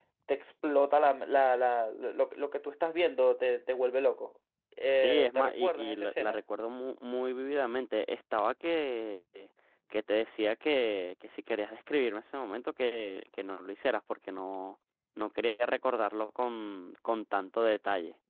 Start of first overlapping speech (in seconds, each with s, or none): 4.9 s